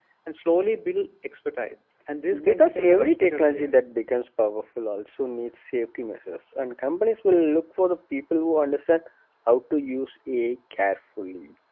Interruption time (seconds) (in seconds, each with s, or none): 2.3 s